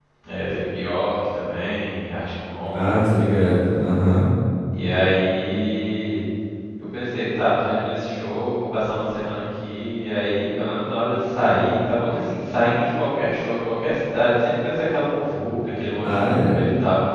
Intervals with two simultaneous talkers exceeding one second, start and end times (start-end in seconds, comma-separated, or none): none